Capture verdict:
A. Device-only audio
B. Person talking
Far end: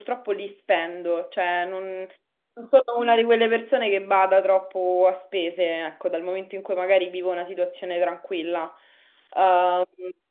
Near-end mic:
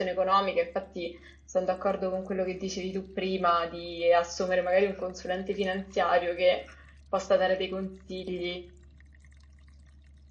B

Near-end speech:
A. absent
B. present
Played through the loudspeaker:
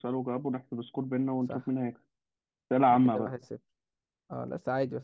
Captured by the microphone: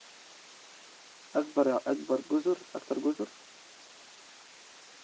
B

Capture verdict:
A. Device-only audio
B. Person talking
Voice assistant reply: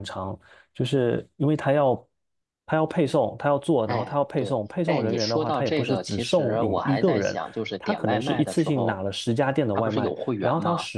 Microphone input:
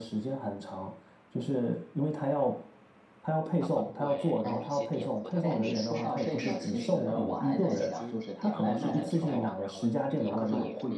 B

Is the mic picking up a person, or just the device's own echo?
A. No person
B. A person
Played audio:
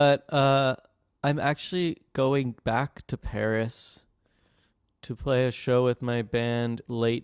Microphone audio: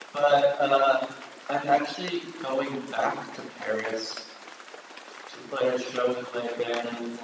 A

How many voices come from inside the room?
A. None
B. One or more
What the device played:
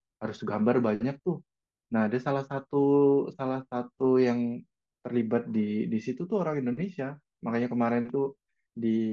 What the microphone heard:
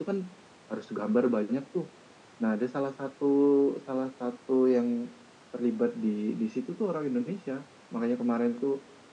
A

